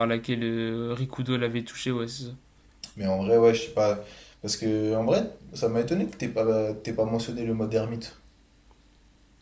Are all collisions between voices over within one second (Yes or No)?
Yes